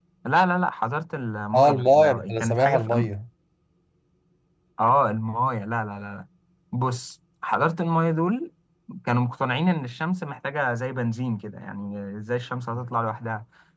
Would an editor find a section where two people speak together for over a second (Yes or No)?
Yes